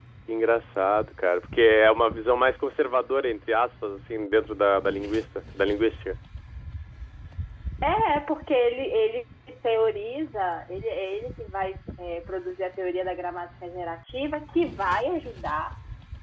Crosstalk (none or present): none